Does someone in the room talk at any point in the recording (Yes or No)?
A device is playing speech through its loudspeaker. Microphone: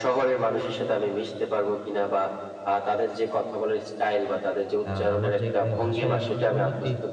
Yes